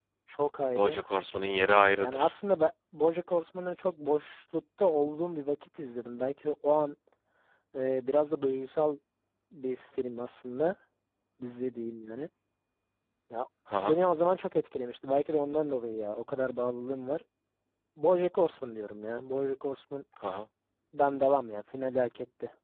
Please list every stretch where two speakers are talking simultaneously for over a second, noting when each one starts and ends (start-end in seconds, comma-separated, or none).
none